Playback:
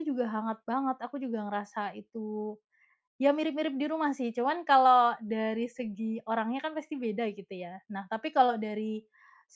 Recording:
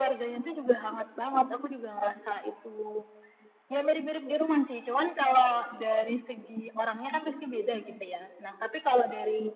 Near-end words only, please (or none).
none